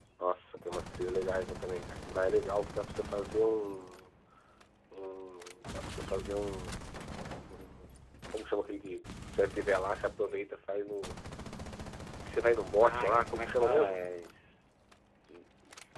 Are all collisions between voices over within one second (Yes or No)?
No